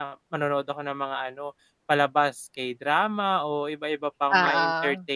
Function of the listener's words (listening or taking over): listening